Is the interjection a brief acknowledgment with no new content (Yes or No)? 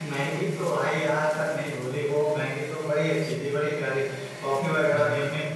Yes